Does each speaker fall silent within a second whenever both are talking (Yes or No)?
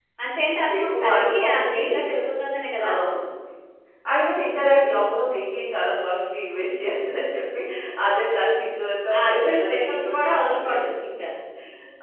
No